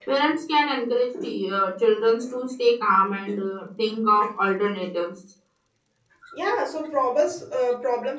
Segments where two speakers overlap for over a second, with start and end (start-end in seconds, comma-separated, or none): none